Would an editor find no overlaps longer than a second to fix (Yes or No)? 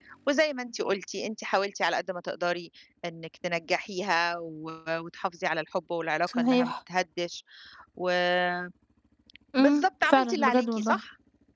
No